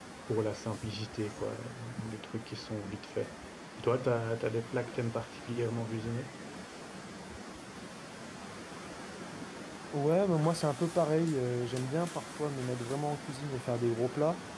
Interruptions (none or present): none